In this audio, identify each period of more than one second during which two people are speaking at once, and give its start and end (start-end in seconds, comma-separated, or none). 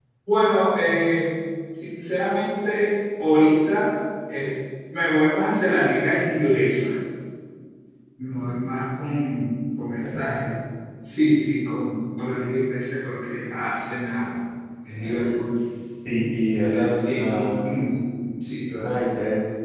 16.7-18.0